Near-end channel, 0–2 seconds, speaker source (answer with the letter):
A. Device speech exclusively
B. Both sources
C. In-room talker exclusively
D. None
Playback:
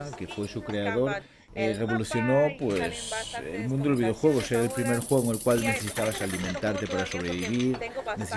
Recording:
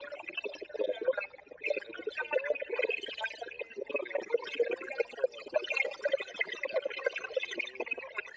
A